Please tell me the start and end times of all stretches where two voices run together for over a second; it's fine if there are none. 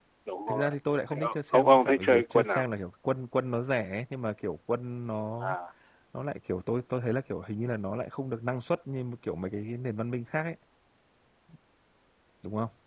1.1-2.6

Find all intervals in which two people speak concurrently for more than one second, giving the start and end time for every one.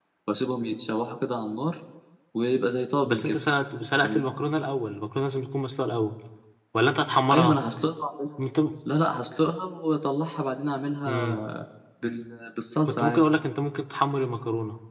none

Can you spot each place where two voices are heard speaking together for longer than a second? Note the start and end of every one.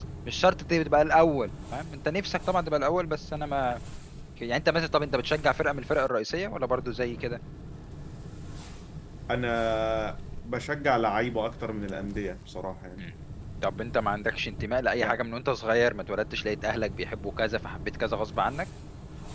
none

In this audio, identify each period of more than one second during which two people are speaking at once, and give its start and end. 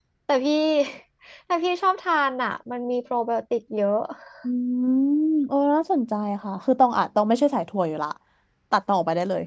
none

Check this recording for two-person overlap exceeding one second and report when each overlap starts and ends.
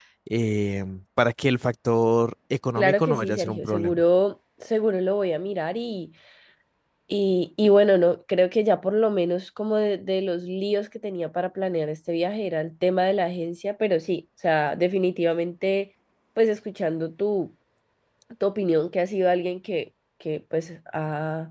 2.8-4.0

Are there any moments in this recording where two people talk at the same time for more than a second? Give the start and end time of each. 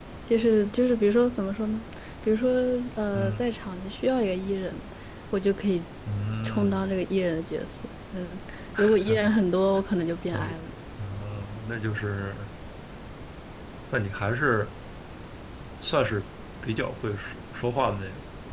none

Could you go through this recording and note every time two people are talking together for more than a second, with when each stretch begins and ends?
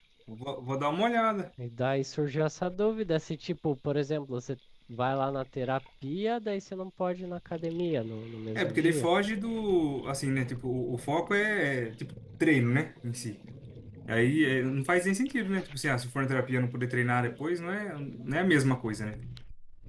none

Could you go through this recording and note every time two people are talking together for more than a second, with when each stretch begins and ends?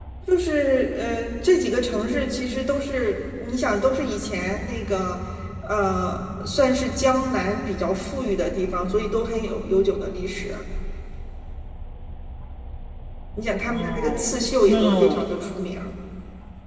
13.6-15.2

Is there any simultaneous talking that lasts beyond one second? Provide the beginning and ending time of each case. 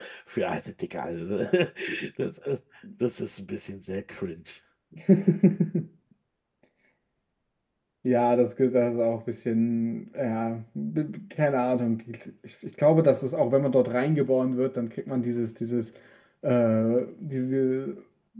none

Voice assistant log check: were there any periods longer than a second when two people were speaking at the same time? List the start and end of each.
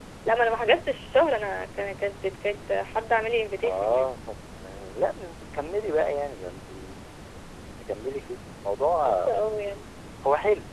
none

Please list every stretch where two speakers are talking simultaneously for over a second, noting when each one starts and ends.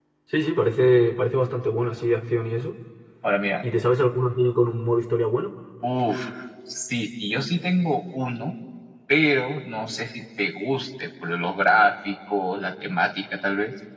none

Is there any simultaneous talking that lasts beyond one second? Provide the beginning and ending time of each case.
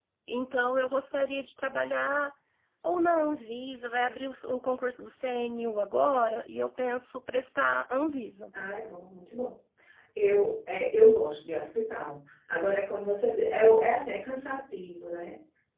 none

